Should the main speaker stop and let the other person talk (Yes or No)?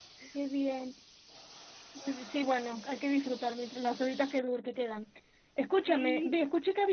No